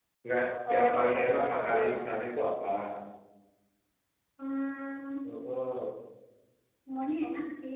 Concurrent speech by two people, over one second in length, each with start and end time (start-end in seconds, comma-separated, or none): 0.7-2.0